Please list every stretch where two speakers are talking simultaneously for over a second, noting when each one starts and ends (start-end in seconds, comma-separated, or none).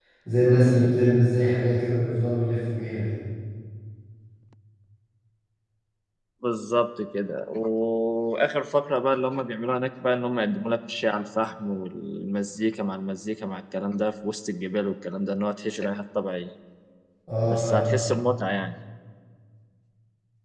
none